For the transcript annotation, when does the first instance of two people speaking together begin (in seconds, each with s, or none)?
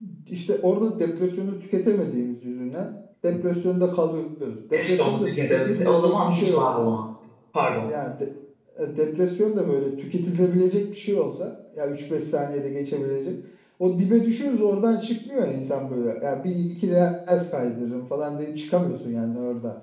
4.7 s